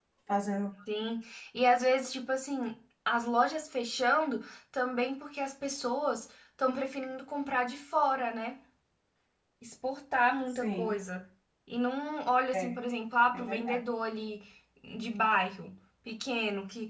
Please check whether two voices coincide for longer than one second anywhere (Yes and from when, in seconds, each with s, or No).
No